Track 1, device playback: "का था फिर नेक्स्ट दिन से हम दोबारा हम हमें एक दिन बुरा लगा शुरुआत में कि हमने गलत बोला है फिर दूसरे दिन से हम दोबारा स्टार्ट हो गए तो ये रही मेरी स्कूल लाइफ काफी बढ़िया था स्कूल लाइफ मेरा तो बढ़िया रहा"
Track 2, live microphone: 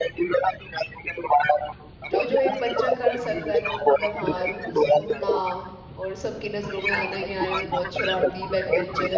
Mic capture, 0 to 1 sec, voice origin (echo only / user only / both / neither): echo only